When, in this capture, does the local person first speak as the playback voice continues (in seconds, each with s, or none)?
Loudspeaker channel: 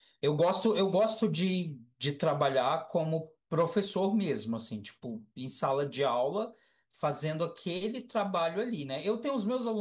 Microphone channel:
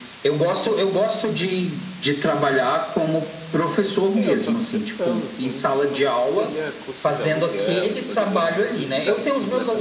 4.2 s